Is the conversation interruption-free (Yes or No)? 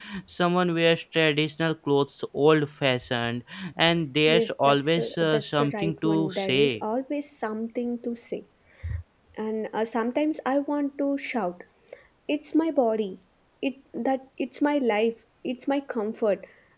No